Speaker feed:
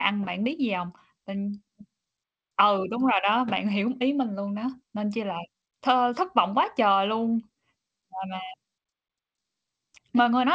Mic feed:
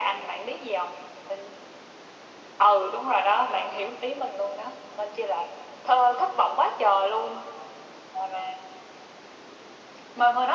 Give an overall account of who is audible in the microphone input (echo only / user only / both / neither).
echo only